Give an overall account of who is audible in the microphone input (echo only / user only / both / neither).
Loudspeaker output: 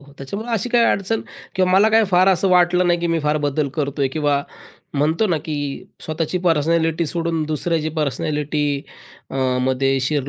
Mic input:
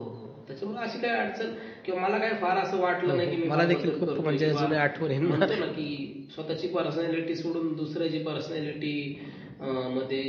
both